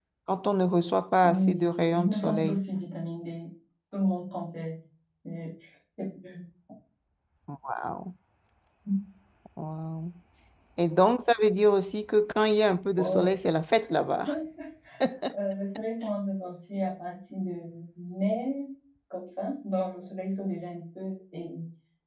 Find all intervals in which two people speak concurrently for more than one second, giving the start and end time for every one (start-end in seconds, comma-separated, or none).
1.2-2.6